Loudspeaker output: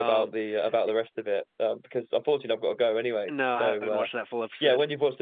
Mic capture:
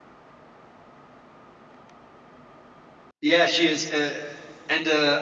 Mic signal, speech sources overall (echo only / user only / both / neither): user only